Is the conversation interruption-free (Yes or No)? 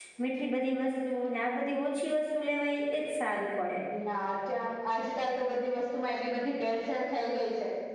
Yes